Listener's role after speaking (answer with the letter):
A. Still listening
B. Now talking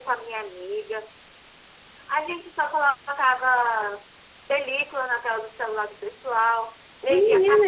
B